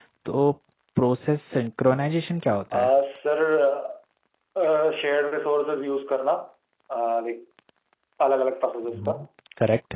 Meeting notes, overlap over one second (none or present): none